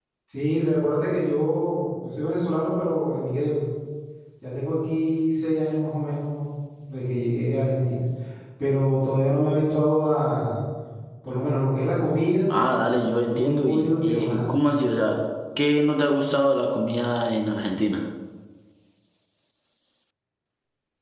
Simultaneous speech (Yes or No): Yes